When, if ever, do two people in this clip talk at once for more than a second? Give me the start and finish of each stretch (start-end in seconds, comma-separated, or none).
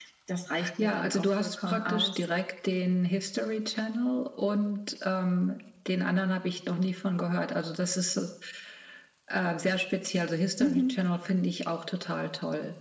0.8-2.2